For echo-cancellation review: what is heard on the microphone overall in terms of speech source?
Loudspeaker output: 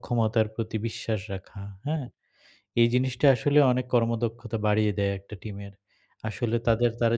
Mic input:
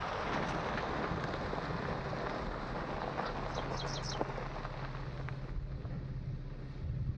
neither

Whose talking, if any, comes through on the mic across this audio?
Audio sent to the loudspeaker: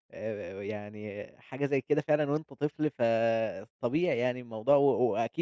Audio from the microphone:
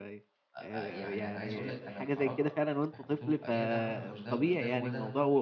both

